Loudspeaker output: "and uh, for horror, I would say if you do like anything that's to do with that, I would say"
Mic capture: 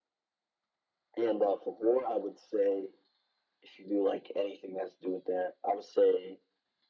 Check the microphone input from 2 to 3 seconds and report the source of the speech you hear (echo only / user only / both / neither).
echo only